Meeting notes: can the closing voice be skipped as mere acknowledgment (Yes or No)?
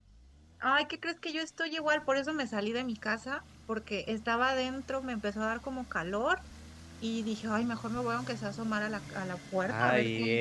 No